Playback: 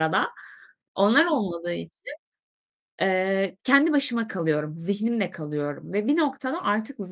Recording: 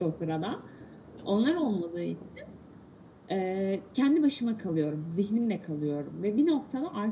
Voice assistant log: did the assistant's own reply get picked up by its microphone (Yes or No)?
Yes